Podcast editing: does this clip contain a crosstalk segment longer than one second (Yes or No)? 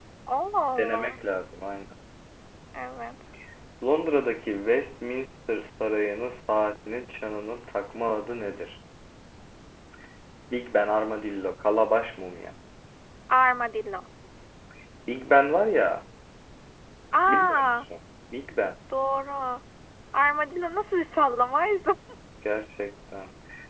No